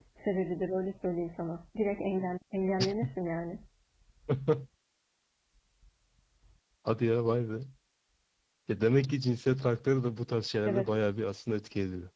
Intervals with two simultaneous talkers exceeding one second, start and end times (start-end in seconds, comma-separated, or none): none